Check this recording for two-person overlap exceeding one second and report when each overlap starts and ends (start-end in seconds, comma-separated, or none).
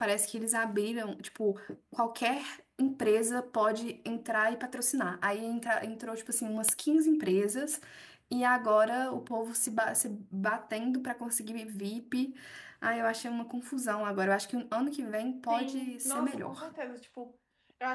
15.5-16.7